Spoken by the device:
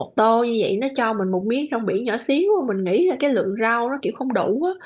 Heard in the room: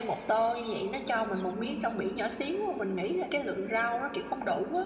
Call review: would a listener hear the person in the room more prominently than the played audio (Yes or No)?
No